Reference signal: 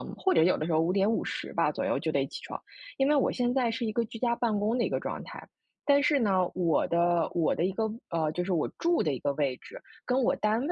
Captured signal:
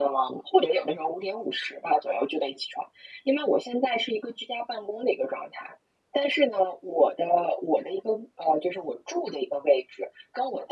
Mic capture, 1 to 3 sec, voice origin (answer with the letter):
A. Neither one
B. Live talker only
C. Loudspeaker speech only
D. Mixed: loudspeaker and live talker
C